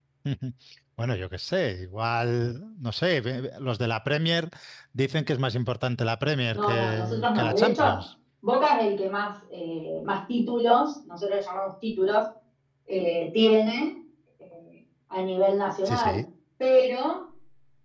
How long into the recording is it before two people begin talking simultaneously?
6.5 s

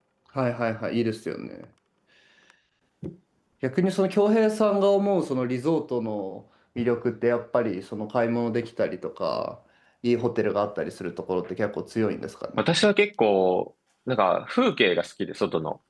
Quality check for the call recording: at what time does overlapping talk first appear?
none

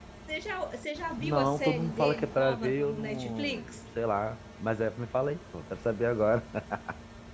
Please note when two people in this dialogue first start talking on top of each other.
1.2 s

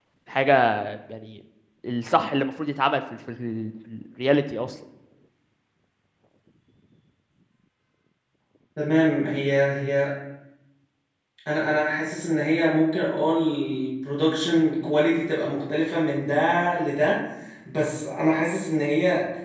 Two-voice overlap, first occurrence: none

